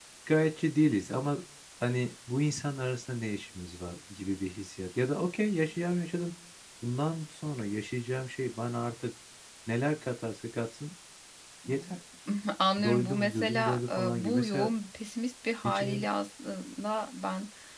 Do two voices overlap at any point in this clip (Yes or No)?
Yes